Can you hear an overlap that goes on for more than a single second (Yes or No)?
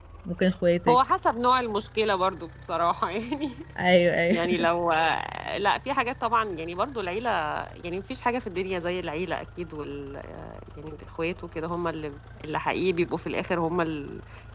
No